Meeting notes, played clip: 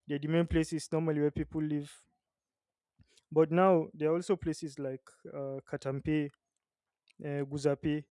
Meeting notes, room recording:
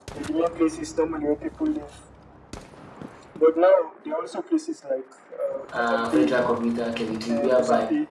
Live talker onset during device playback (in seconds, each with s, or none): 5.7 s